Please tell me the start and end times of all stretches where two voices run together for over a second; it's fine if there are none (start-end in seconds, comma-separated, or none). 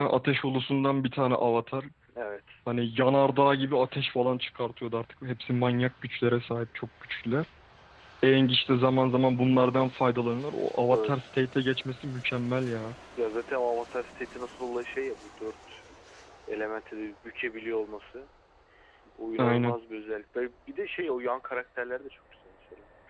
none